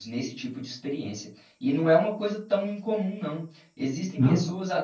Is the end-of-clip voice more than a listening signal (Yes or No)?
No